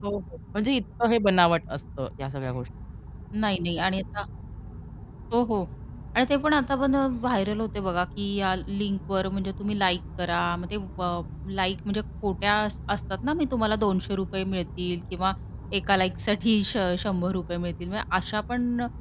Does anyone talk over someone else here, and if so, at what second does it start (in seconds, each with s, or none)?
none